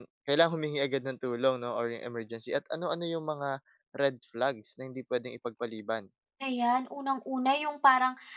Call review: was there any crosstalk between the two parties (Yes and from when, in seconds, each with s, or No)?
No